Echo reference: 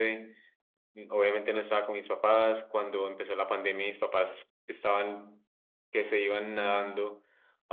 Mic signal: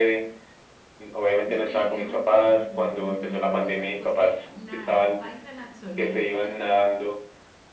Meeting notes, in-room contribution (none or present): present